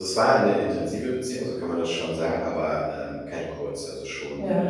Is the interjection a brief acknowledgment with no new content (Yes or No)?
No